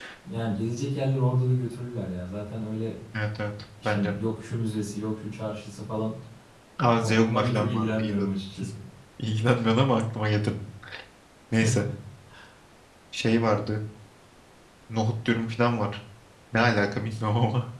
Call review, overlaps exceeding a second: present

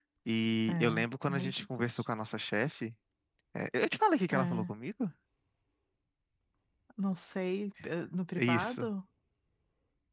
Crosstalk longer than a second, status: present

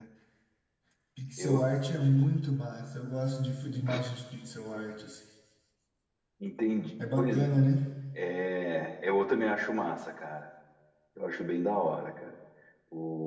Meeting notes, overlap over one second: none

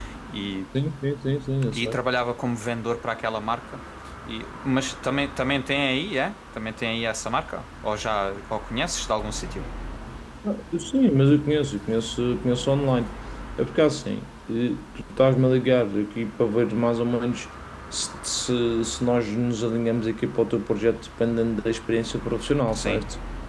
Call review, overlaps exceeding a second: none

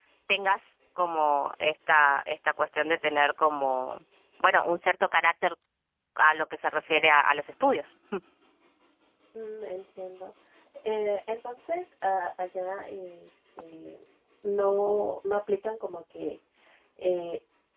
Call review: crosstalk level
none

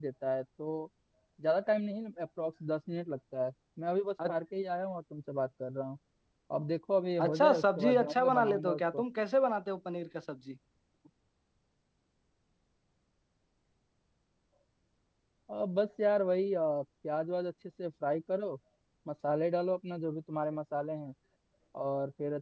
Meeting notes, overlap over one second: present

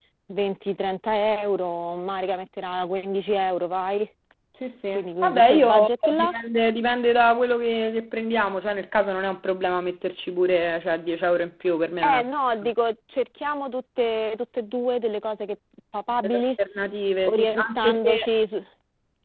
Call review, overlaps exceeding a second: present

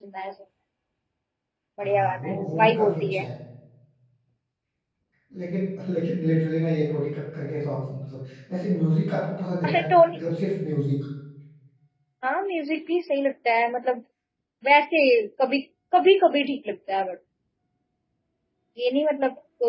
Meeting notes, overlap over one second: present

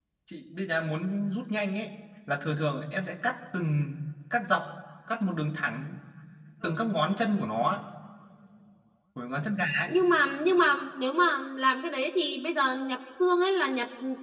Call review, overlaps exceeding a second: none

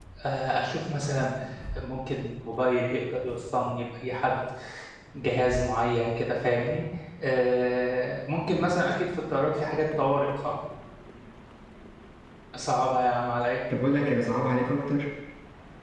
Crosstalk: none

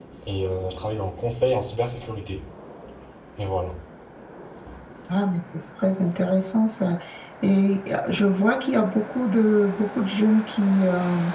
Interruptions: none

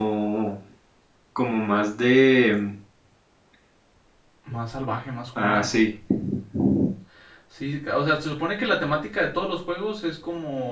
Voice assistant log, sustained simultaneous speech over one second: none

